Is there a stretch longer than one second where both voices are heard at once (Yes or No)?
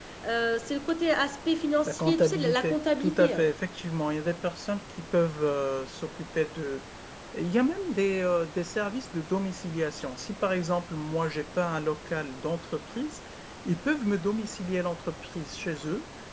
Yes